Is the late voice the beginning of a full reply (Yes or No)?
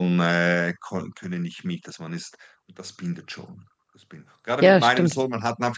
No